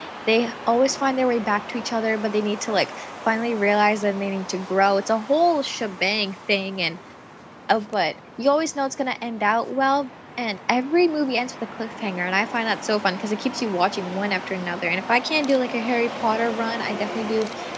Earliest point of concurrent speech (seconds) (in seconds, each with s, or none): none